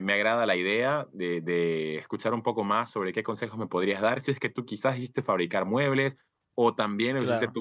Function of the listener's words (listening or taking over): listening